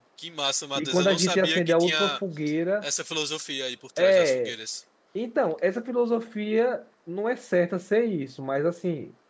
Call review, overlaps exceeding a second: present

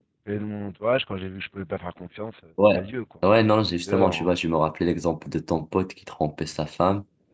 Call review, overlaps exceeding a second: none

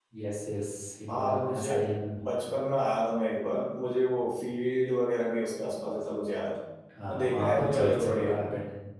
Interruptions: present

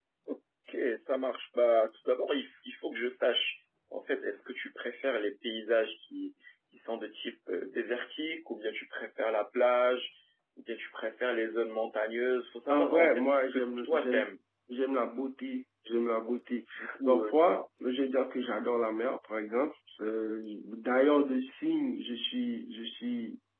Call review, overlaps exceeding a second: present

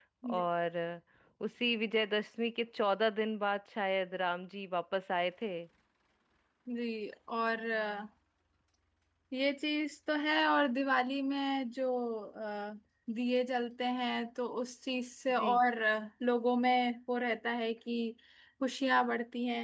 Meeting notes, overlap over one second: none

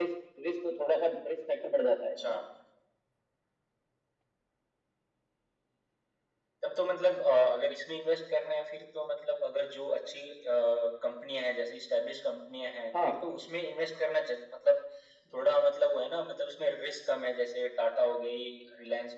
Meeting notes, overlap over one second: none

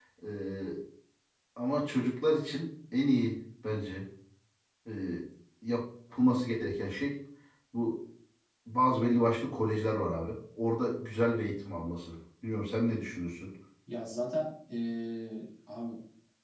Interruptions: none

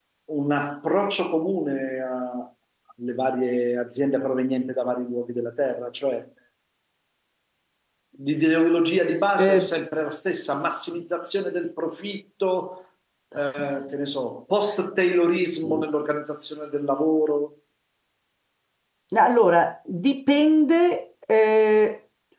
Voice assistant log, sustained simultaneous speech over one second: none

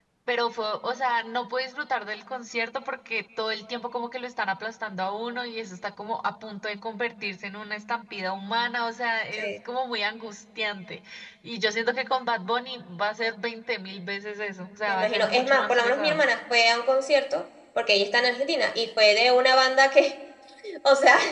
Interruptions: present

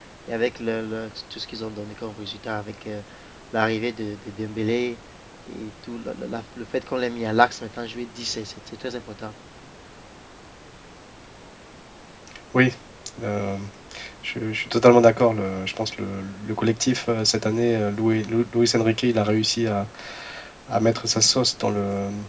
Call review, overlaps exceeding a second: none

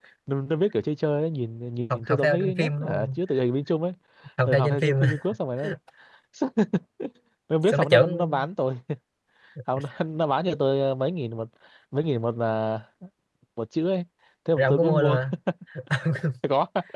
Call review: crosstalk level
present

